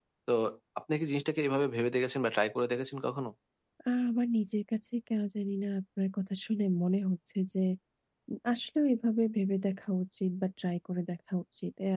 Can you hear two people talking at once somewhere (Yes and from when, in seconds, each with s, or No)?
No